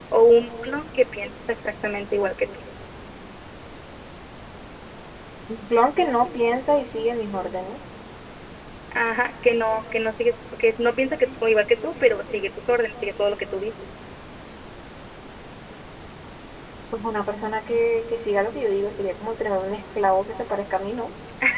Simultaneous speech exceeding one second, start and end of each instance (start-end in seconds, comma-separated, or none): none